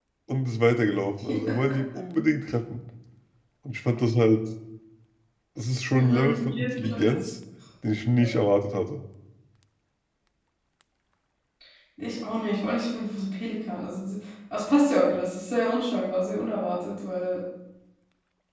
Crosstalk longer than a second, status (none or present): present